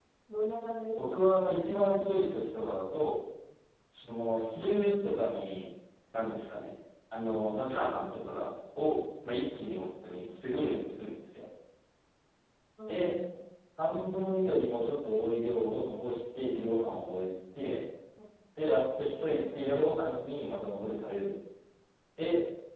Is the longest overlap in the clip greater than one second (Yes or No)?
No